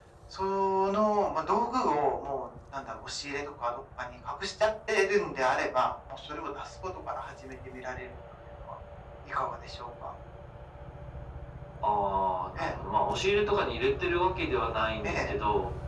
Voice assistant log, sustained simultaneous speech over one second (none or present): none